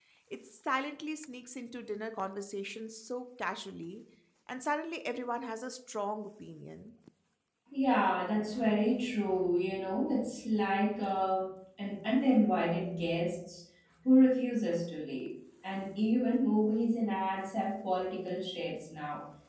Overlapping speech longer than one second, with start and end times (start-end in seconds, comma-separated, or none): none